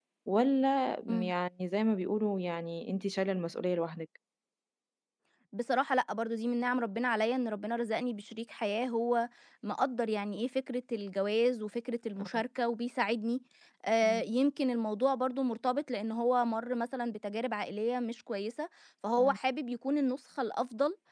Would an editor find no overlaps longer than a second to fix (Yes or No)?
Yes